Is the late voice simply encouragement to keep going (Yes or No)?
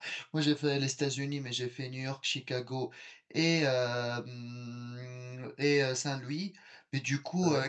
Yes